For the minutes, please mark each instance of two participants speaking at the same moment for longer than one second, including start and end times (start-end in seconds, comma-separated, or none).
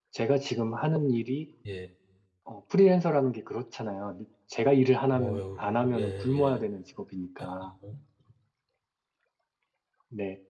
5.1-6.6